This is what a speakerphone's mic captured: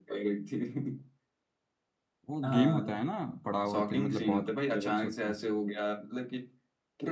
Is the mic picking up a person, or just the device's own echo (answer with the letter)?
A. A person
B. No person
A